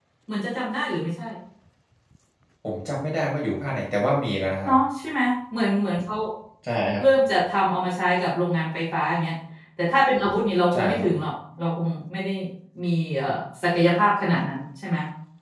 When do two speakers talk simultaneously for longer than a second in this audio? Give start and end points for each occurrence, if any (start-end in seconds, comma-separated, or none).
none